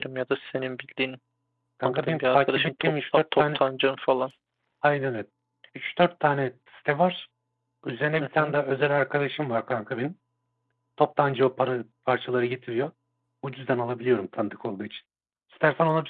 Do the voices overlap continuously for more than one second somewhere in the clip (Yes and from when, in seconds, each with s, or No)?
Yes, from 1.8 s